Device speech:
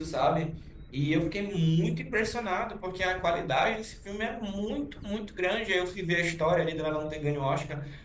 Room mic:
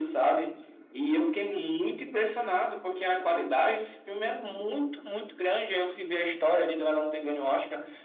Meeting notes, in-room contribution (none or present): none